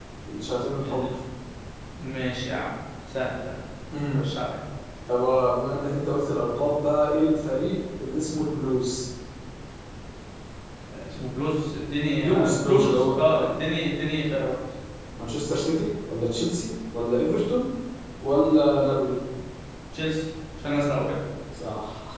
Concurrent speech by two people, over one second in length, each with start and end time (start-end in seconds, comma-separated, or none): 12.2-13.6